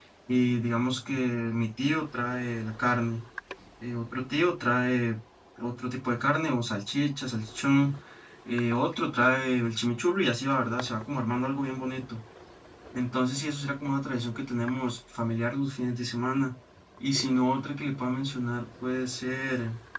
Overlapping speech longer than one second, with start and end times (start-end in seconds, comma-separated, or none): none